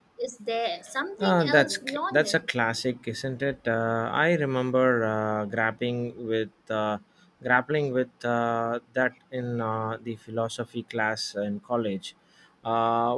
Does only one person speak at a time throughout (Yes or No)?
No